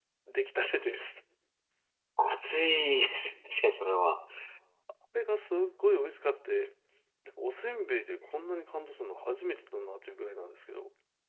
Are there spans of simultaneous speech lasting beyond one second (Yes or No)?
No